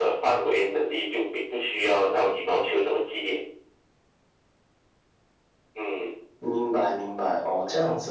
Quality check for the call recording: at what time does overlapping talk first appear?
none

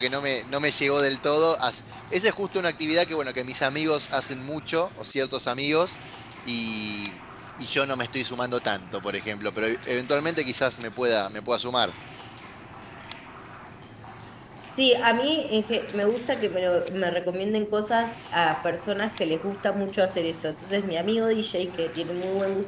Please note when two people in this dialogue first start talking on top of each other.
none

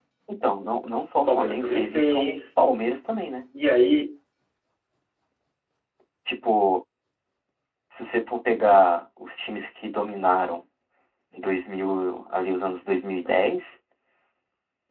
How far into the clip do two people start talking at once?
1 s

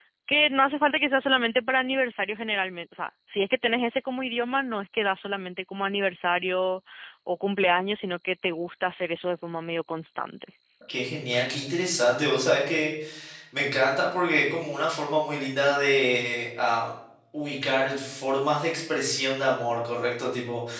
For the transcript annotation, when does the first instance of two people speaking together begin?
none

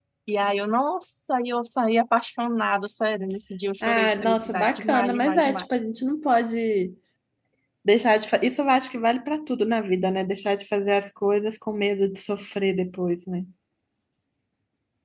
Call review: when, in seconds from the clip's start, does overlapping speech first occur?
4 s

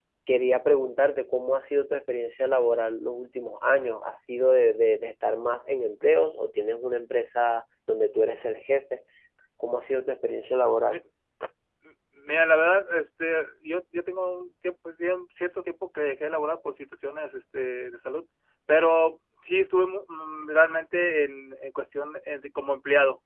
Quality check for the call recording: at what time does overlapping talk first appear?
none

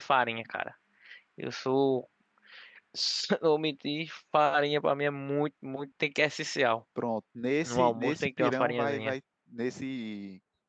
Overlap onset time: 8 s

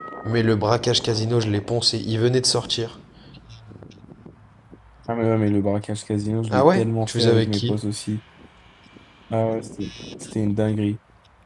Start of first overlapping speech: 7 s

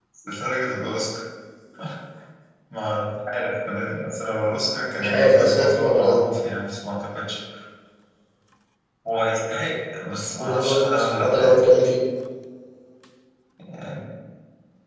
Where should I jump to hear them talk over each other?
5 s

